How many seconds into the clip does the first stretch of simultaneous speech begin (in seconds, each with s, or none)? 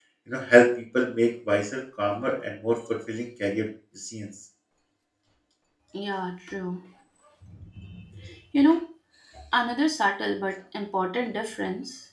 none